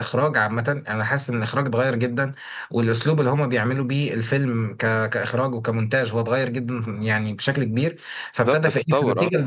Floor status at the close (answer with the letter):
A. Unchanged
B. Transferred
A